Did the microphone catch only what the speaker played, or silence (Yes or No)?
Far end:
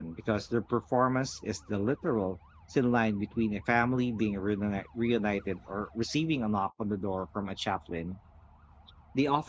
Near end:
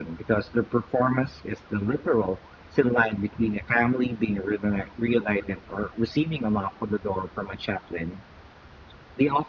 Yes